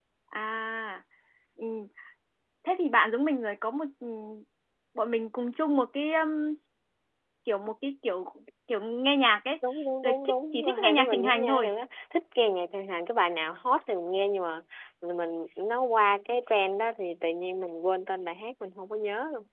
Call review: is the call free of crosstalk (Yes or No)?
No